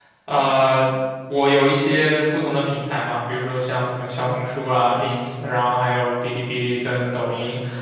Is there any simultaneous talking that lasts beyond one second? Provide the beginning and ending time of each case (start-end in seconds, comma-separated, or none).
none